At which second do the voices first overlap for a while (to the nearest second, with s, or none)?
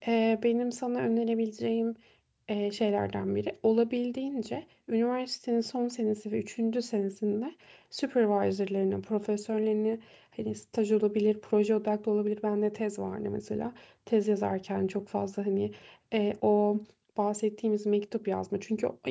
none